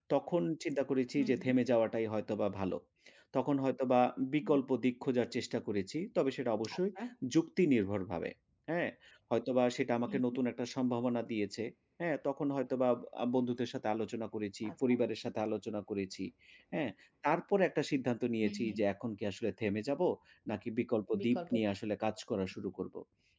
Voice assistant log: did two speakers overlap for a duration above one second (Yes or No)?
No